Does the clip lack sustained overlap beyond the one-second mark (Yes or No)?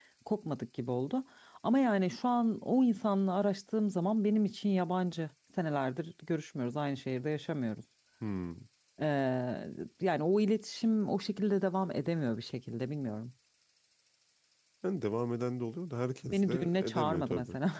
No